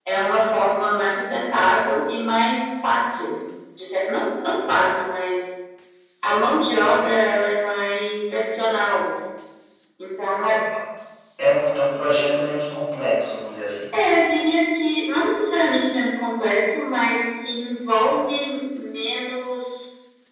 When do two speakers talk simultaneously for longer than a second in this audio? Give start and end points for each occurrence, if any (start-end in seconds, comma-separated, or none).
none